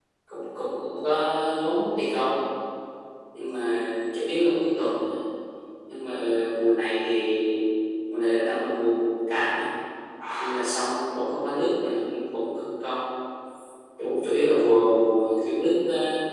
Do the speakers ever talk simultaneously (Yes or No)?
No